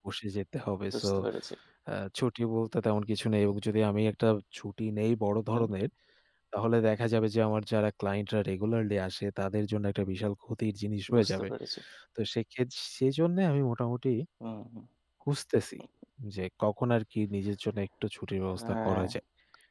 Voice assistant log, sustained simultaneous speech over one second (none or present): none